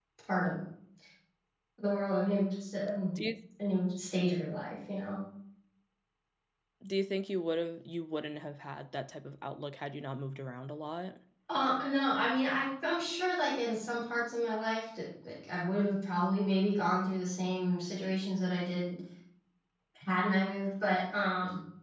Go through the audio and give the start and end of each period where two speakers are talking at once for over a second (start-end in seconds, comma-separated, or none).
none